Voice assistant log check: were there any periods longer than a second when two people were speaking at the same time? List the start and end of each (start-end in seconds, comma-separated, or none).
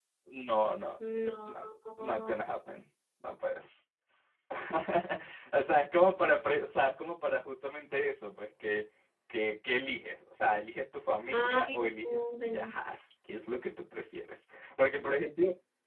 11.3-12.7